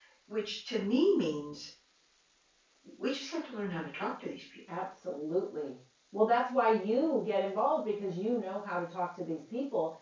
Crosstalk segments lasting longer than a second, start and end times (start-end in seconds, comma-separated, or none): none